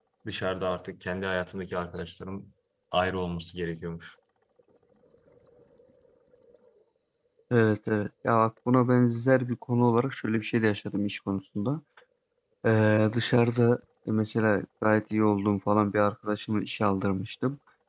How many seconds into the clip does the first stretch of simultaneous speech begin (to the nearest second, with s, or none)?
none